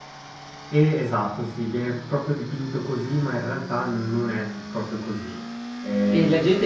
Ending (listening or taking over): taking over